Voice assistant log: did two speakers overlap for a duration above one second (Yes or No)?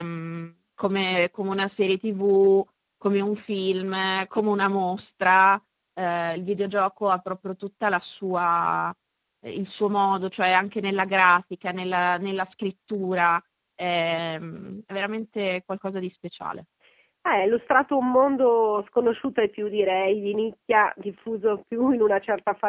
No